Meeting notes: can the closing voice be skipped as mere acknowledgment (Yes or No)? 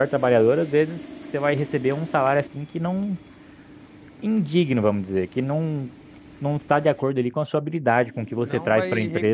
No